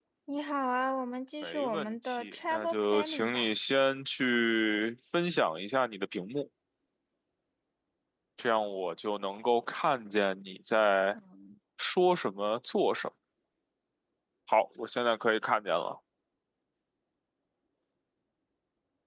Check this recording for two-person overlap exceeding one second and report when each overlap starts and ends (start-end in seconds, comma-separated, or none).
1.4-3.5